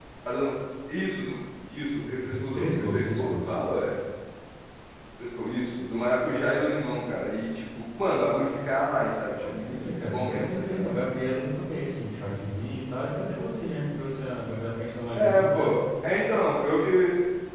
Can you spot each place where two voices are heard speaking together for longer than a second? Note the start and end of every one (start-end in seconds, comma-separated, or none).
2.2-3.6, 9.4-10.9